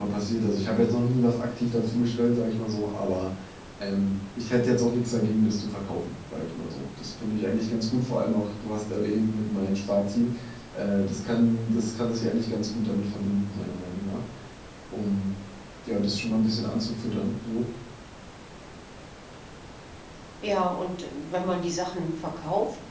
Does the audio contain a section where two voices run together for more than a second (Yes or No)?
No